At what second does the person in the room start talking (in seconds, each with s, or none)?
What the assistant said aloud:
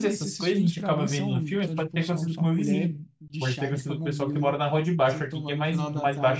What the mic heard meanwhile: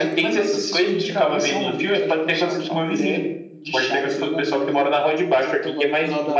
none